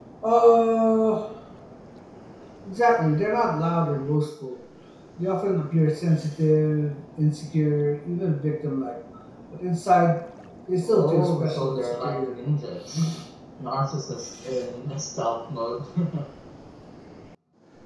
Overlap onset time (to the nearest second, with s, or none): 11 s